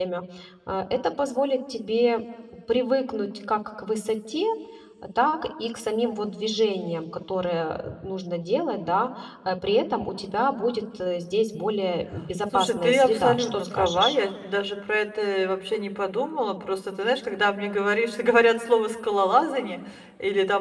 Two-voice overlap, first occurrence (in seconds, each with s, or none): 12.5 s